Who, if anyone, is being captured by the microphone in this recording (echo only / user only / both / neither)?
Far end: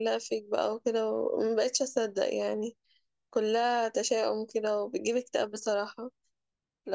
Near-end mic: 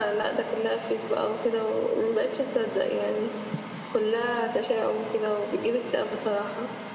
echo only